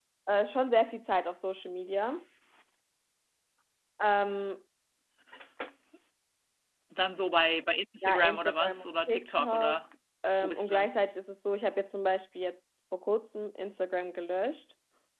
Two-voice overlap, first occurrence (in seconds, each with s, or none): 8.0 s